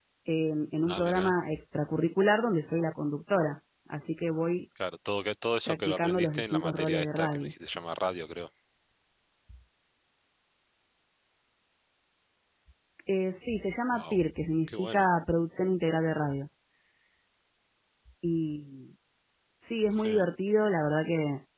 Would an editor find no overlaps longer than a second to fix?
No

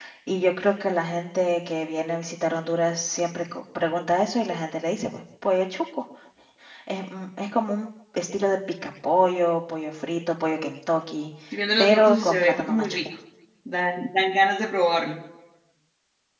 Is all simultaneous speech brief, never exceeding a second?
No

